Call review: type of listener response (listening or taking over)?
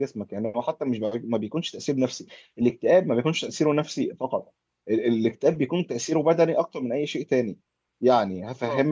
listening